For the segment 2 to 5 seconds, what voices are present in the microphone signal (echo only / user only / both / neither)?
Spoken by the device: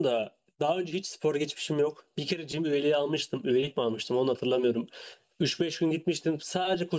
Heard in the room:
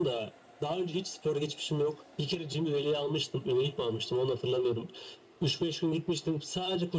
echo only